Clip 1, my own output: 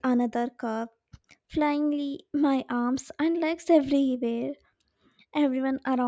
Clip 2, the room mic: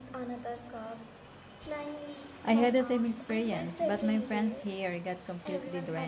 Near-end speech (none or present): present